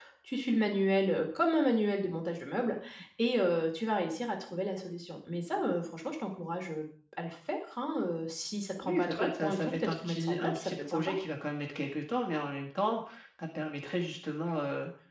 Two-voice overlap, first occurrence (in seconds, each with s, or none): 8.8 s